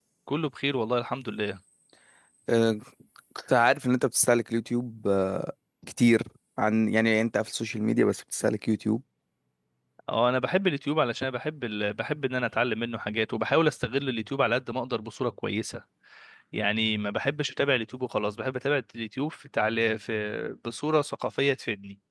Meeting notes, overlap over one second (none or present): none